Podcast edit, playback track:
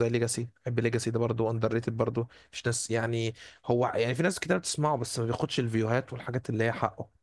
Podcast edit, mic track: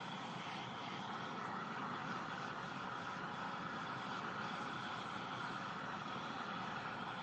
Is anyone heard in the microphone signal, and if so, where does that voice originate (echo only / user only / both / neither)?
neither